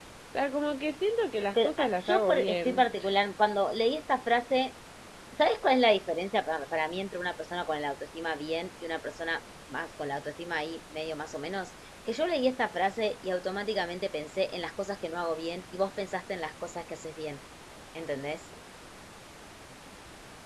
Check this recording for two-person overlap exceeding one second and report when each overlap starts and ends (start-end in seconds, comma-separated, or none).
1.6-2.9